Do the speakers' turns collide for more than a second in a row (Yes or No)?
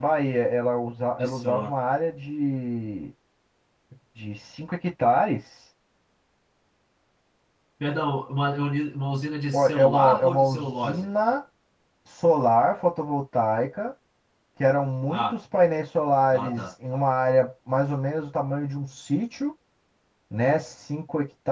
Yes